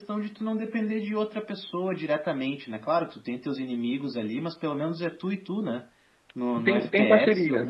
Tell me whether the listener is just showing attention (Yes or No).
No